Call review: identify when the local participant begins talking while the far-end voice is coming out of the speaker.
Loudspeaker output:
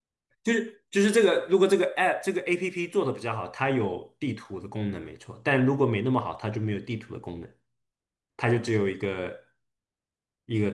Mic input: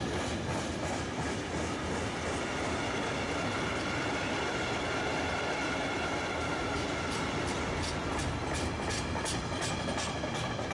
none

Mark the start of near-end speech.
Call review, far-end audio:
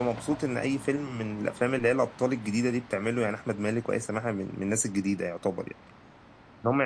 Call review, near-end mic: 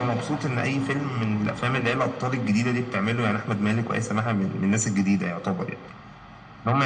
none

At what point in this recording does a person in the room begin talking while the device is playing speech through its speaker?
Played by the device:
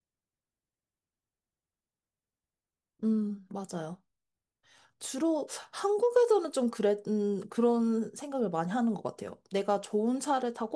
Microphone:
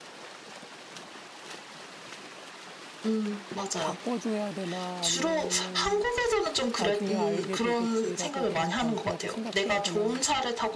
3.8 s

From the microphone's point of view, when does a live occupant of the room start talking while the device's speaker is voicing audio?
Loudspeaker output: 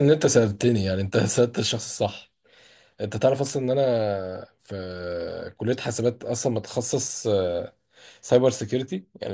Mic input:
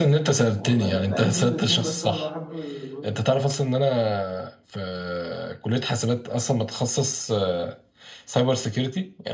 0.5 s

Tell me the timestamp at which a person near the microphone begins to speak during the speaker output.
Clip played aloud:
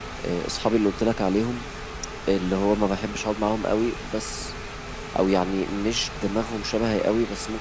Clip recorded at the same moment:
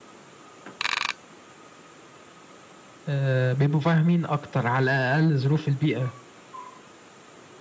3.1 s

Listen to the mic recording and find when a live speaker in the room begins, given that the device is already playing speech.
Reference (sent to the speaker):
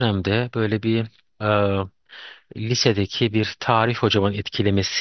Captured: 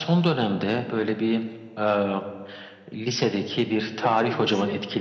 4.0 s

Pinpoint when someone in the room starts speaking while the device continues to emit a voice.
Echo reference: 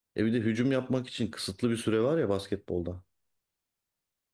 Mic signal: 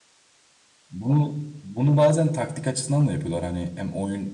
0.9 s

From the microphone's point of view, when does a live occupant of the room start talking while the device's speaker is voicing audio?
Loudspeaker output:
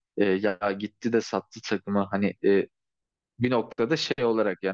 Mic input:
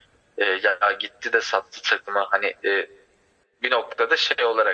none

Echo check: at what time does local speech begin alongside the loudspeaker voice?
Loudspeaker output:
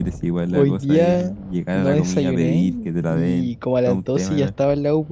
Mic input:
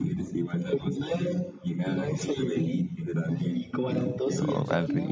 3.9 s

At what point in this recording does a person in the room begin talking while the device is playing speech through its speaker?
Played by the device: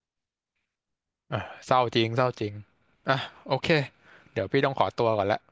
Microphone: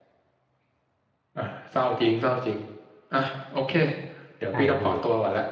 4.5 s

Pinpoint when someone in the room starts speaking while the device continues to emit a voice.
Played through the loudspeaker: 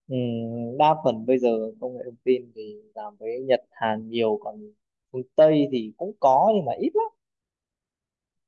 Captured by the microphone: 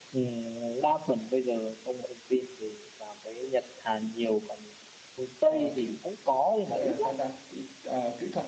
5.4 s

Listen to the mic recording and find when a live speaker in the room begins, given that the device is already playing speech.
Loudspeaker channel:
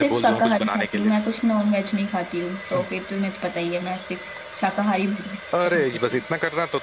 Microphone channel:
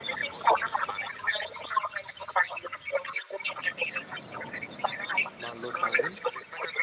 5.4 s

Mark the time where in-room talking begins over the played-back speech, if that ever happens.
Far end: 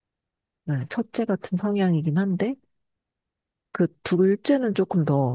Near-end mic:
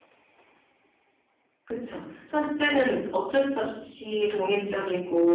1.6 s

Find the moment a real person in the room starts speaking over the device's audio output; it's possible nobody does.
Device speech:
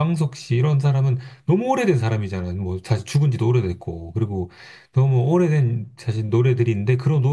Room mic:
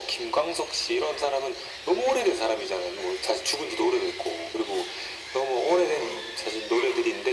none

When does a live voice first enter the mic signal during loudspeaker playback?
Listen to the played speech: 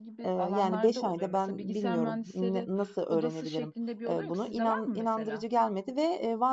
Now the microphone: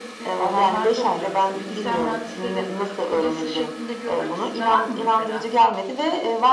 none

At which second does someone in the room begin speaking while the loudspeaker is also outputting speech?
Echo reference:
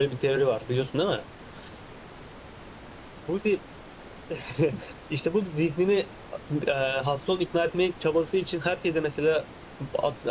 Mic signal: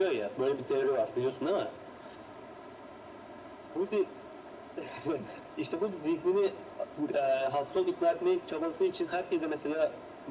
none

